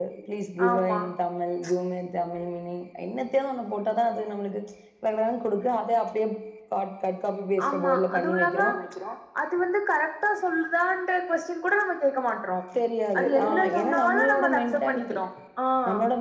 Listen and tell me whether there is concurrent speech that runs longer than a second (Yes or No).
Yes